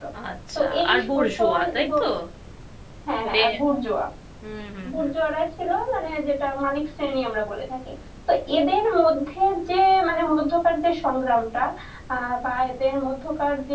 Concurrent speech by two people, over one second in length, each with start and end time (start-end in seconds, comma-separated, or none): 0.6-2.0